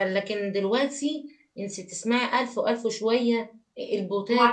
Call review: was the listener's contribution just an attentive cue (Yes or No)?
No